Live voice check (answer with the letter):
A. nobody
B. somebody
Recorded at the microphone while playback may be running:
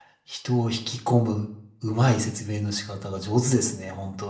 B